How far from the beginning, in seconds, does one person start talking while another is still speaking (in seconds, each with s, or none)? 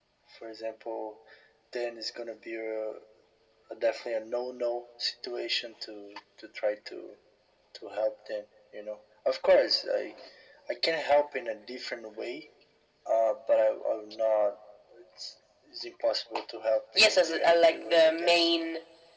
16.9 s